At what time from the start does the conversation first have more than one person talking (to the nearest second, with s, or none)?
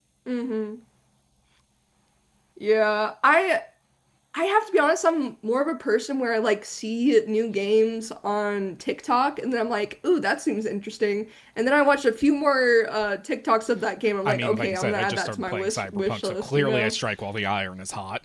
14 s